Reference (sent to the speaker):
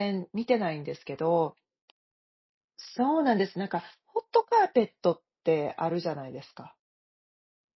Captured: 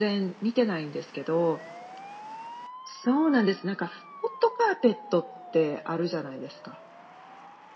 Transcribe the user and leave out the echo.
none

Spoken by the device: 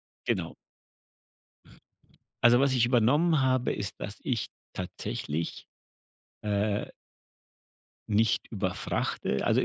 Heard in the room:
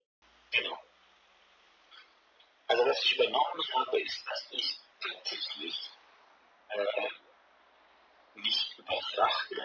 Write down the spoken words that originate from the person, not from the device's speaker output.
none

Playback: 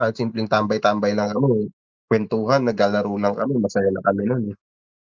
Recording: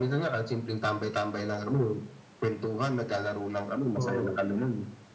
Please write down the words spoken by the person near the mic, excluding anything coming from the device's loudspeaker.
Mhm.

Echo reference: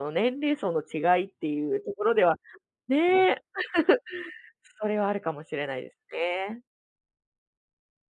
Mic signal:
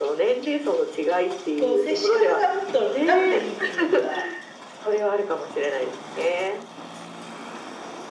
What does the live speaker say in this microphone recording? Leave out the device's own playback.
こう接し方がもっとラフでいいってゆうか

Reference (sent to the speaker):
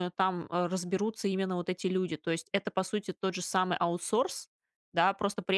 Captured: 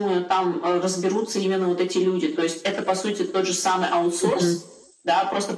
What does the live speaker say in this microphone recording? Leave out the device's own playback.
Мгм.

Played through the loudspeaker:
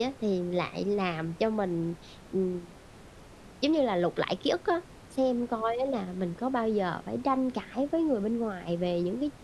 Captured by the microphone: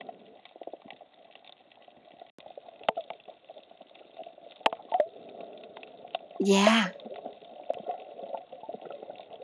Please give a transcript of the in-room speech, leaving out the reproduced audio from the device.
Yeah,

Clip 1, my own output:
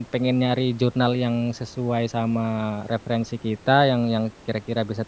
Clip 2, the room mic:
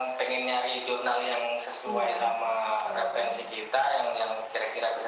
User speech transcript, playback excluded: Iya, betul.

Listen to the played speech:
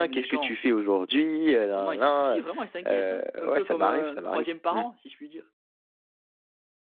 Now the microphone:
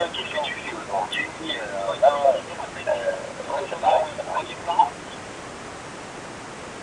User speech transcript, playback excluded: none

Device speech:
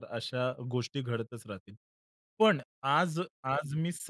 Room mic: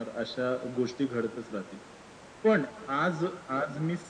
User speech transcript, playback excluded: none

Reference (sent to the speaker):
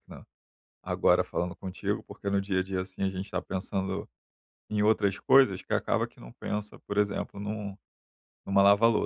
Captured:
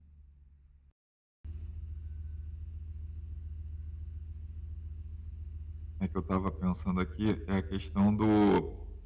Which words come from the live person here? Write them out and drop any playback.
né, que eu estava pensando aqui, é a questão do

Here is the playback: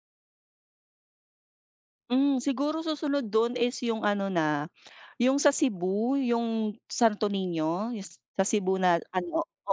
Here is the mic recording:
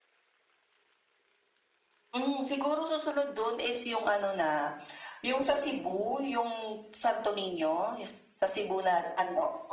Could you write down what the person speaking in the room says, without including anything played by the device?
none

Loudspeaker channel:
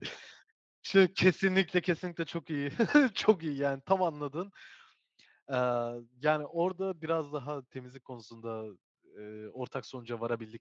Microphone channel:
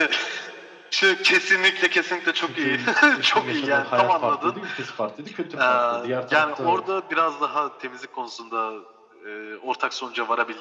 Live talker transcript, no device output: Çünkü eşimin yaşadığı hayat farklıydı, ülkesi farklıydı, kültür farklı. Diğer tarafta

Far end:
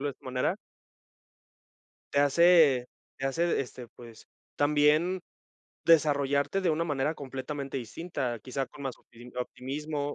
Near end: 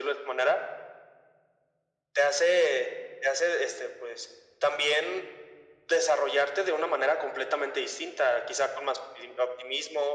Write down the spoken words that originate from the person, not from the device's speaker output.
none

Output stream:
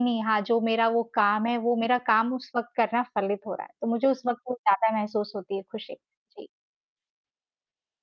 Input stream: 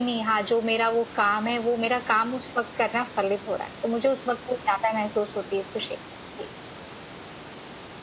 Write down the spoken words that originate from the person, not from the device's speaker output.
none

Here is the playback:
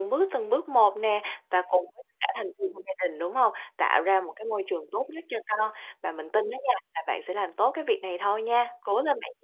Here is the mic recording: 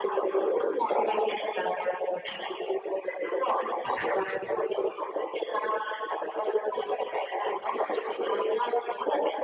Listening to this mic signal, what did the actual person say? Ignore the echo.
none

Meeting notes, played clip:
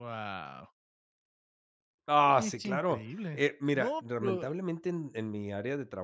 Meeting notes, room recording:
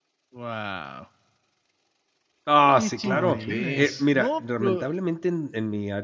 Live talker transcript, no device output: ¿Cómo crees?

